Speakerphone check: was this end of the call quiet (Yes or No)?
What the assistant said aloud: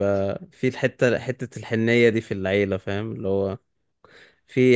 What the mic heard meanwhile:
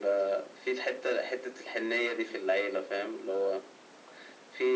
Yes